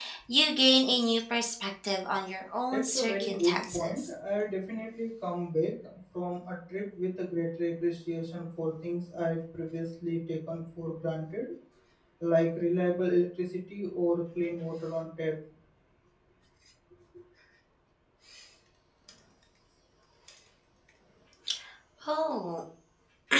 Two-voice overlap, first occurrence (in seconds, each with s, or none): 2.7 s